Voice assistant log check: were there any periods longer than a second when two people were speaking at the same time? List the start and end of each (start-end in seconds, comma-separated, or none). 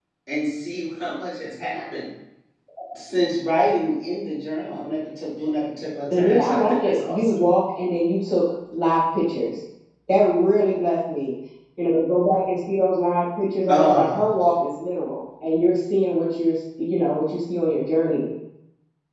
6.1-7.4